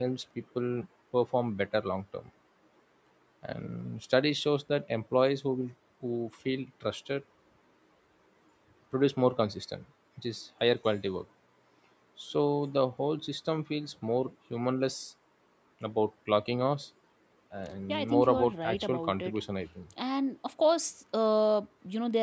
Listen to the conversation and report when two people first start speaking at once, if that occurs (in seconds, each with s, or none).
17.9 s